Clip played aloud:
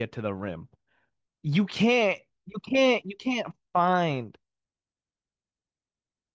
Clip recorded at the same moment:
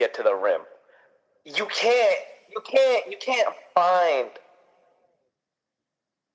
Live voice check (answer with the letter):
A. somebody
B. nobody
B